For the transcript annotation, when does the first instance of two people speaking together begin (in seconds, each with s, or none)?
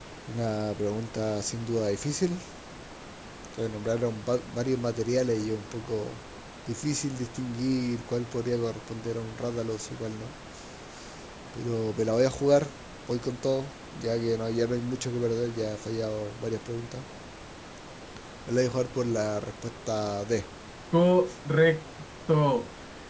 none